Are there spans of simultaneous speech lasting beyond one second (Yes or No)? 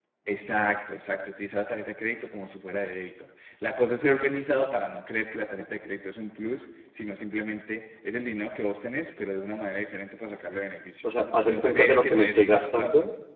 Yes